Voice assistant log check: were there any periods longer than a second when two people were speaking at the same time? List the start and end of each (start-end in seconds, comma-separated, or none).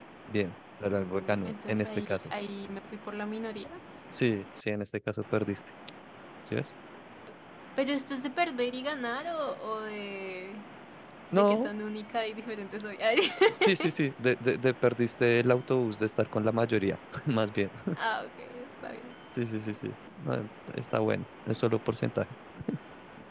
0.9-2.2